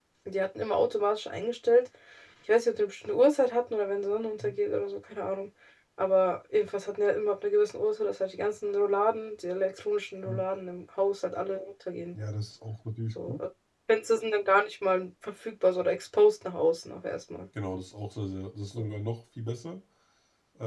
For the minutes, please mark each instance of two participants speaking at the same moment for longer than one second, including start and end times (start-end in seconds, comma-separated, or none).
none